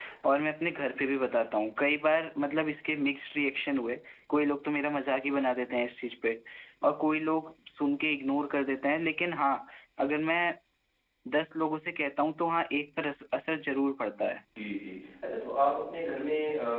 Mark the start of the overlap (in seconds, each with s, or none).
none